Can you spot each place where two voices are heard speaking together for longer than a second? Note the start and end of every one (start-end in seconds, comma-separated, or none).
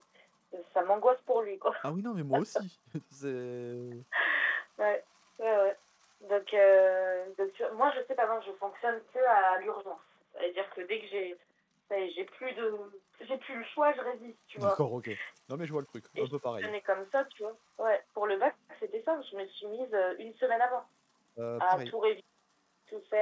none